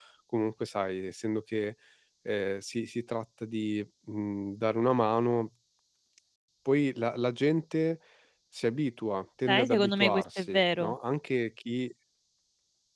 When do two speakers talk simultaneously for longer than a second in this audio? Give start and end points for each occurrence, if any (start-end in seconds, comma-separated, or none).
9.5-10.9